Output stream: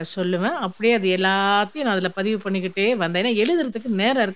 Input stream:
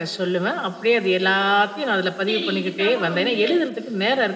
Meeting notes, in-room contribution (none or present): present